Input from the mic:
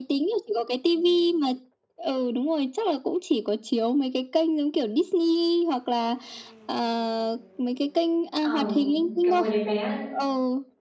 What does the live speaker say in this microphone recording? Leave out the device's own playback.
Ờ. Kiểu hồi đấy bé, ơ

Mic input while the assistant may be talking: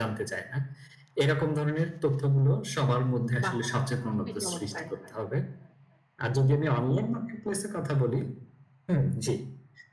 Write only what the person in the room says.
বাহ! খুবি চমৎকার।

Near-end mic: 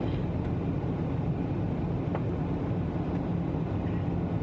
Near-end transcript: none

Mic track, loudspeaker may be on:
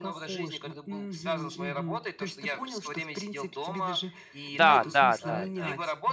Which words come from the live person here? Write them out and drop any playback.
Да, да, да, да.

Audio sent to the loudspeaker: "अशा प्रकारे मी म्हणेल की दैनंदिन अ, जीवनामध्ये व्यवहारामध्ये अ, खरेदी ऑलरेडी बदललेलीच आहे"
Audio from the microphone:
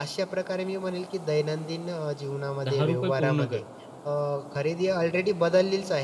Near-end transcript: ₹10 पूर्ण कर.

